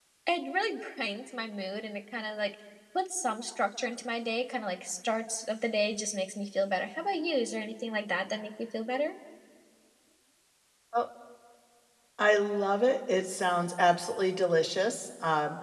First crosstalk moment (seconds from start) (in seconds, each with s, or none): none